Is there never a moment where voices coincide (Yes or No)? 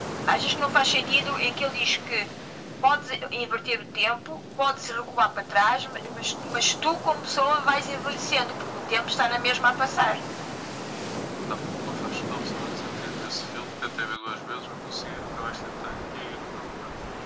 Yes